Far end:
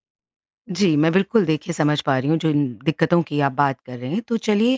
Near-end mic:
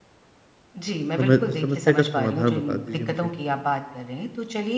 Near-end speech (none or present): present